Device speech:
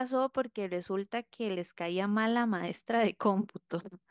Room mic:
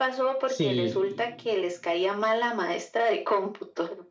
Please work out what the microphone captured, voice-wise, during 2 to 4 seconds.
echo only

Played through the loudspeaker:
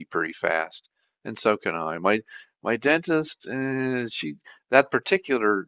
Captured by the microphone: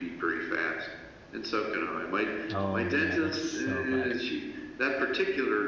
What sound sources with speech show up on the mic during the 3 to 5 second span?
both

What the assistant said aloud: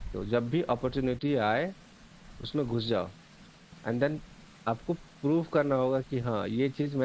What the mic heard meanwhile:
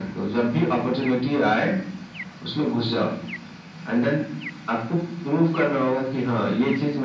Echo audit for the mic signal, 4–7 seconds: echo only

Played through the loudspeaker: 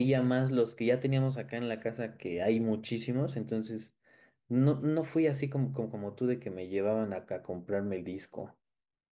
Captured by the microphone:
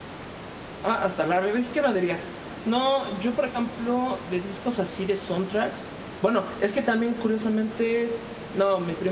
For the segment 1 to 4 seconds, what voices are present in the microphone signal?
user only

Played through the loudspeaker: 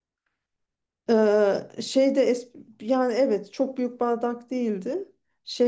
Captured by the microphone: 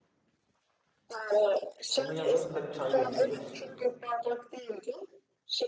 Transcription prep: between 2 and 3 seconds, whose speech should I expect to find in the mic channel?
both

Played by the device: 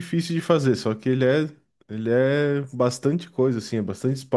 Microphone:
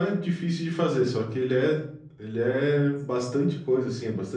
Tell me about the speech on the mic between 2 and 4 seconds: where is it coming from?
echo only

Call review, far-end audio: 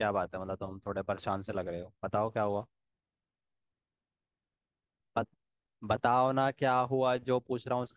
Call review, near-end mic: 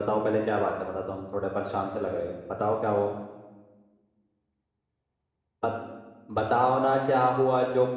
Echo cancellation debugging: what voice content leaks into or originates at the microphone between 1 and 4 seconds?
echo only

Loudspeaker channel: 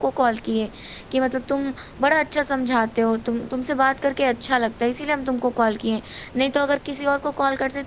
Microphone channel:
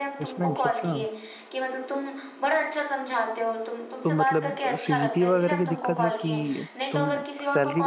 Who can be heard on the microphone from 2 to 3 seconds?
echo only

